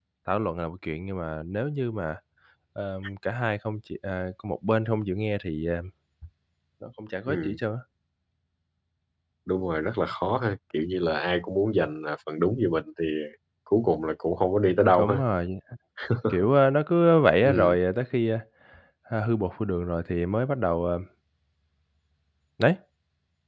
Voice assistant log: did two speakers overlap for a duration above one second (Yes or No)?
No